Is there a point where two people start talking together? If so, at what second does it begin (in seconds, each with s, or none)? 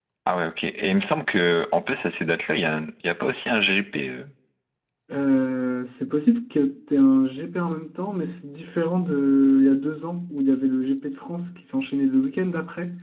none